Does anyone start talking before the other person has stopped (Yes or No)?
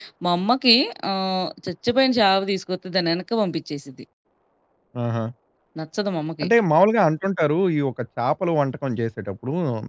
No